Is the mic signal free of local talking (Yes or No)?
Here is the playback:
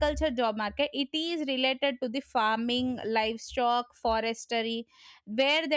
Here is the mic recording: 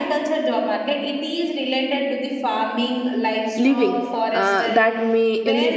No